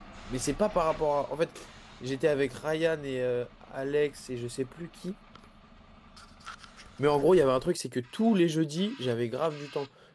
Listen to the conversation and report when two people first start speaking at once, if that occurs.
none

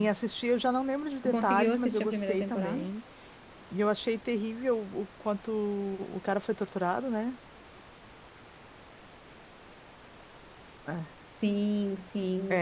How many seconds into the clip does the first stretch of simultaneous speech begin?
1 s

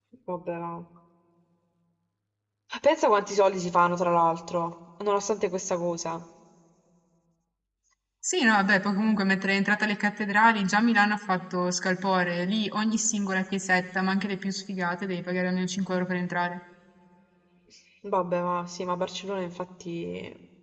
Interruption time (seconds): none

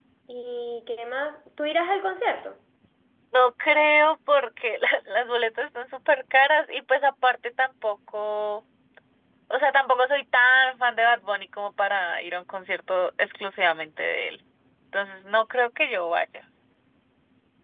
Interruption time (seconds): none

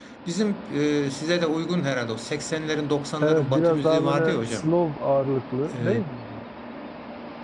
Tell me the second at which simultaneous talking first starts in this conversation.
3 s

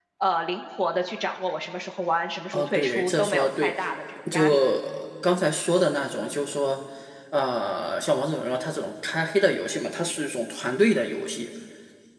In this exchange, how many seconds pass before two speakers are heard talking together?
3 s

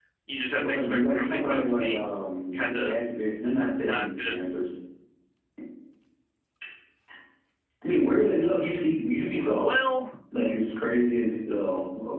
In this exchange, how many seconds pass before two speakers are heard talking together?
1 s

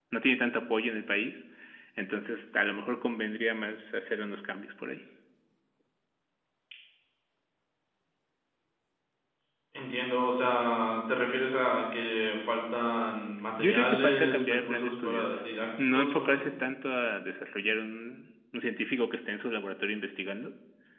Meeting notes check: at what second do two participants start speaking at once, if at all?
14 s

